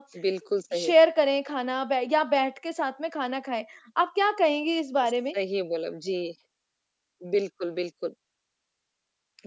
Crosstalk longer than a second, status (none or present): none